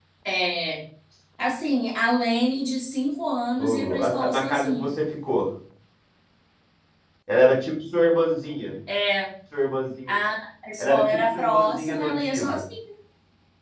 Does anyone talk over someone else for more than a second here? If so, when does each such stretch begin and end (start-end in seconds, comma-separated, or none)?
3.6-4.9, 10.8-12.6